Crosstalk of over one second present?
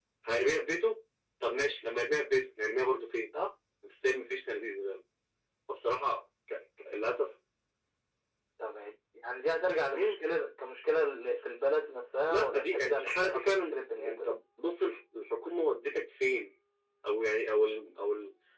Yes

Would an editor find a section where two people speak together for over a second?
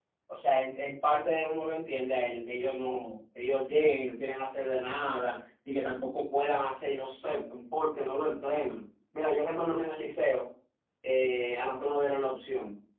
No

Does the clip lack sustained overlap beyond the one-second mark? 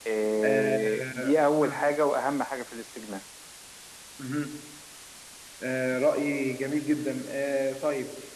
No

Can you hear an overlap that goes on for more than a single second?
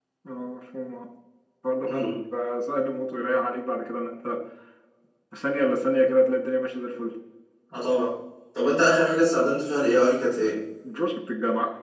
No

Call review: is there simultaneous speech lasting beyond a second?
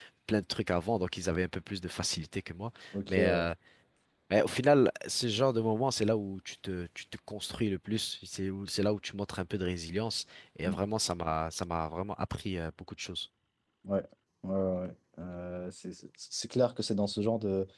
No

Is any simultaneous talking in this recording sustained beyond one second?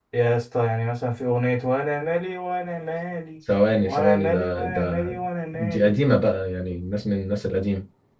Yes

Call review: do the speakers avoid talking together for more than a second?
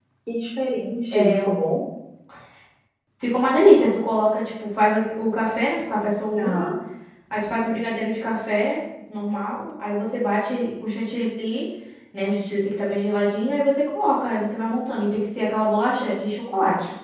Yes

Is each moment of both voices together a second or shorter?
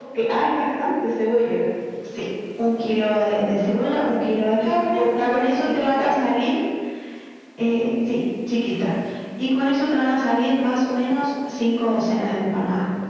No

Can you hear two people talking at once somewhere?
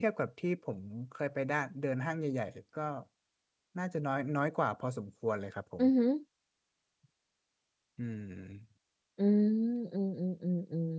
No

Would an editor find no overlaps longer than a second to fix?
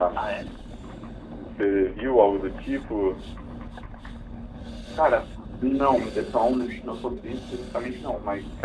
Yes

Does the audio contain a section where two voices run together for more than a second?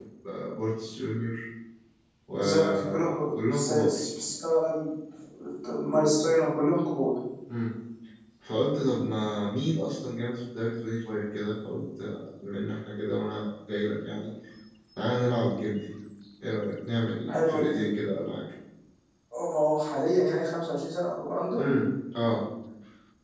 Yes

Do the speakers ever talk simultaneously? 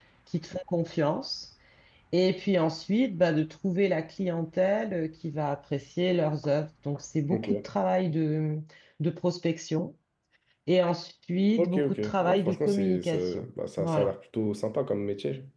Yes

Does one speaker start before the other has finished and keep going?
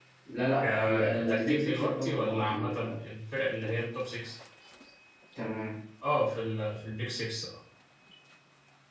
Yes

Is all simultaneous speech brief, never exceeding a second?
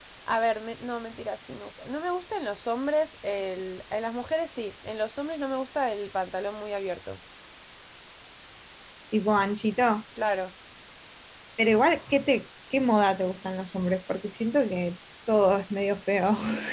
Yes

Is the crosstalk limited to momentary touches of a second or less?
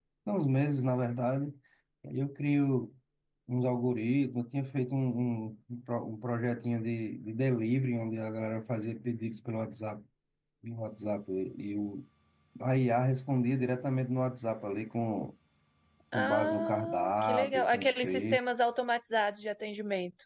No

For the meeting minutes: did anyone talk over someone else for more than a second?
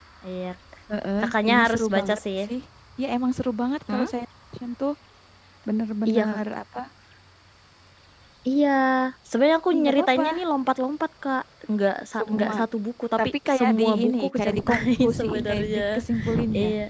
Yes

